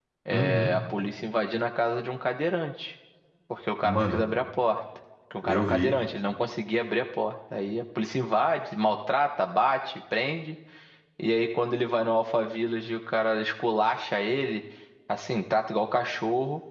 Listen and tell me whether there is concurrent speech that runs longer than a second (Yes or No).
No